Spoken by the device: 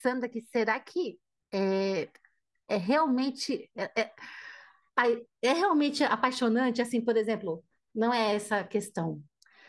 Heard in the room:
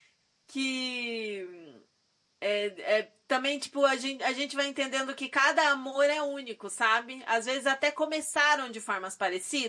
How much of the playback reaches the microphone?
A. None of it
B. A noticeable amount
A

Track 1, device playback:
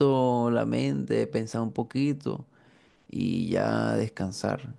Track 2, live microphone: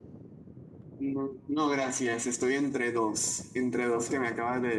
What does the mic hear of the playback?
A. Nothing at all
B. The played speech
A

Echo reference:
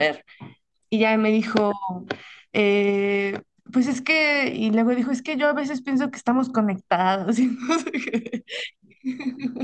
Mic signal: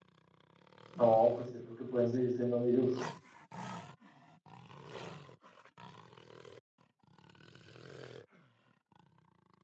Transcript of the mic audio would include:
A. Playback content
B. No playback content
B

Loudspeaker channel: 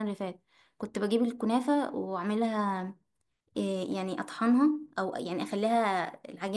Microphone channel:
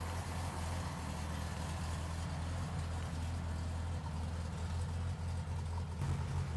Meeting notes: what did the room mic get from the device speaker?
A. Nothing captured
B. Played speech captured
A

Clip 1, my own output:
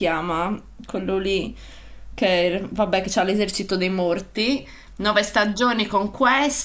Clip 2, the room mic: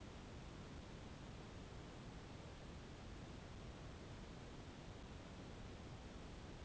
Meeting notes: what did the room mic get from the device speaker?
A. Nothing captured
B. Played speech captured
A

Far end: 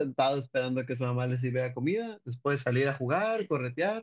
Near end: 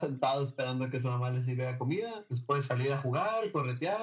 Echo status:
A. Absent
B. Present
B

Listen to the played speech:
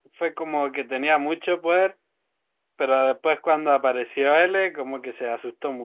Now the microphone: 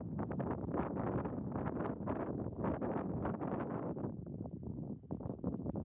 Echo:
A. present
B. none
B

